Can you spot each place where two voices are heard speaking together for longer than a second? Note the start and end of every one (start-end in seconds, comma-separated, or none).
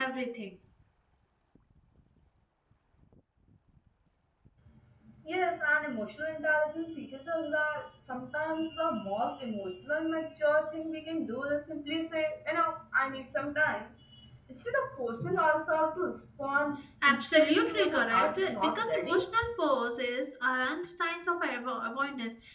17.1-19.2